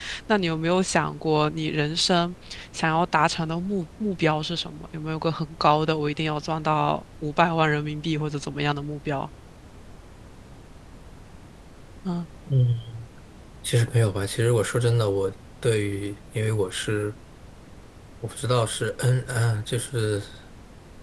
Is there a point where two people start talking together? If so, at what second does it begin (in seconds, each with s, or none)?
none